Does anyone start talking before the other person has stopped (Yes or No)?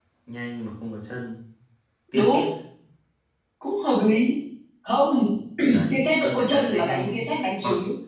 Yes